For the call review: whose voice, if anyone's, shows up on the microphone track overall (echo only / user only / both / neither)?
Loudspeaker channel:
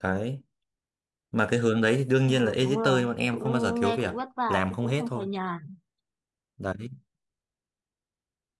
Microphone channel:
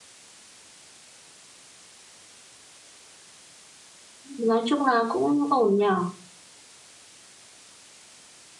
user only